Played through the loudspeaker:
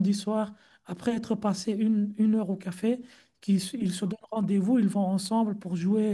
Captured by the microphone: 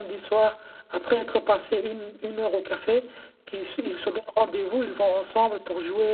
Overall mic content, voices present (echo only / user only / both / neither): echo only